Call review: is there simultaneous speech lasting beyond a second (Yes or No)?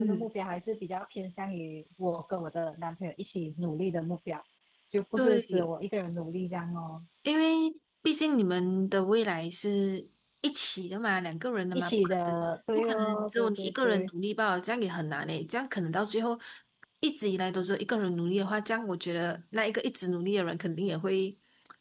Yes